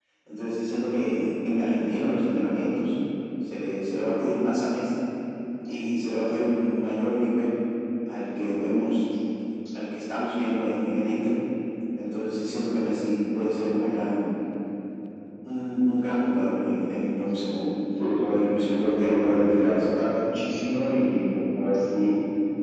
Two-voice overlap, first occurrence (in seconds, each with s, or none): 18.3 s